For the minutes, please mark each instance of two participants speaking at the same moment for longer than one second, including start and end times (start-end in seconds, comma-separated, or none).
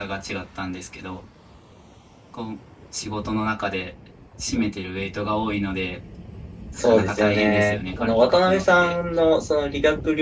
6.8-9.0